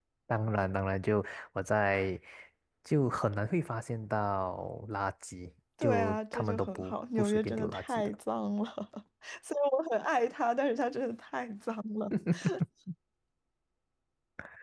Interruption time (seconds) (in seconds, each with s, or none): 5.8 s